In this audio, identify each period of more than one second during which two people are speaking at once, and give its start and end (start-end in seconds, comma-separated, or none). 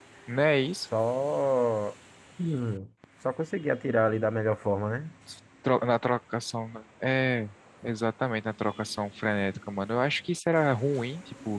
none